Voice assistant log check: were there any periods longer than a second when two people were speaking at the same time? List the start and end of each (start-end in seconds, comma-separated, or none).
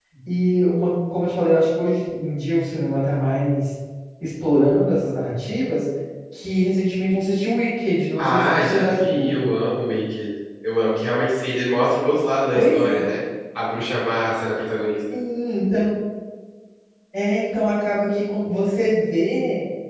8.2-9.4